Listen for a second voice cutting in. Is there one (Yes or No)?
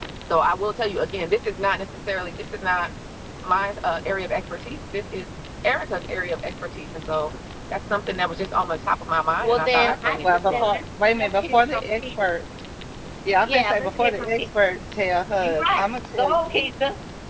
Yes